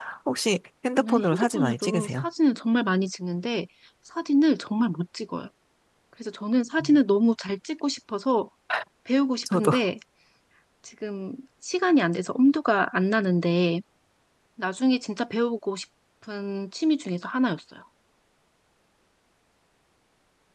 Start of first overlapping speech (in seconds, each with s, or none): 1.0 s